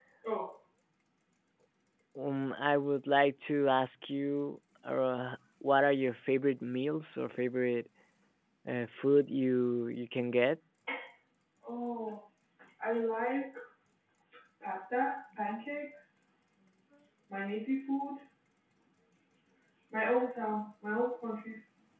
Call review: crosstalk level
none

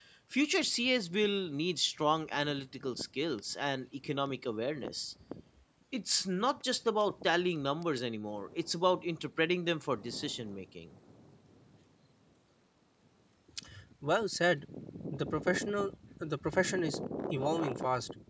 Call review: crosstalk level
none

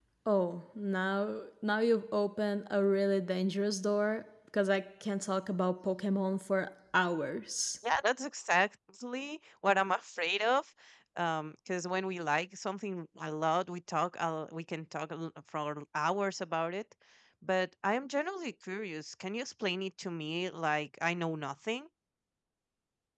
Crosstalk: none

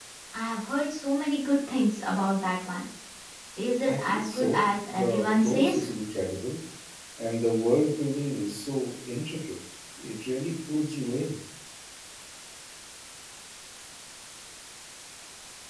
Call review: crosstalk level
present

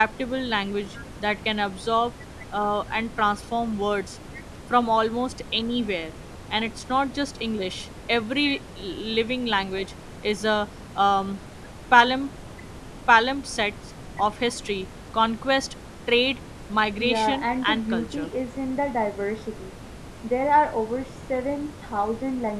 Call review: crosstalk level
present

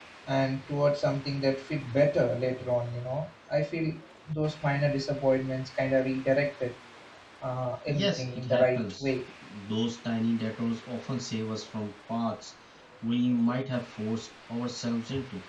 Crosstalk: present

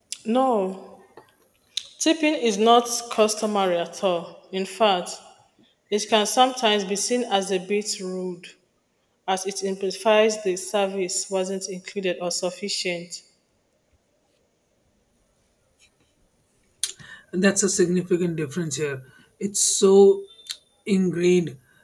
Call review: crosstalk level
none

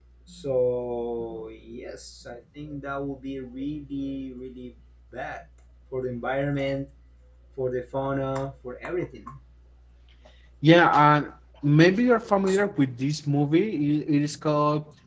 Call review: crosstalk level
none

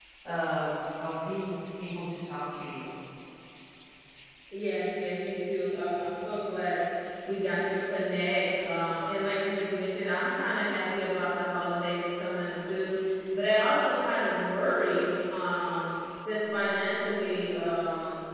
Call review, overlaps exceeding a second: none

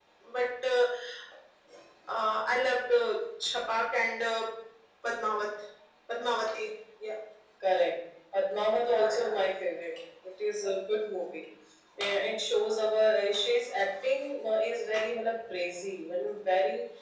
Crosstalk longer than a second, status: none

